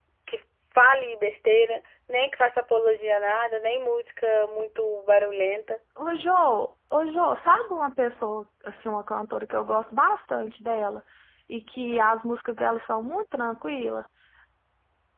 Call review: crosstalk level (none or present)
none